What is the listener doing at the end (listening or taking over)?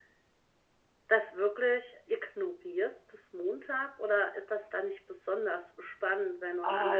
taking over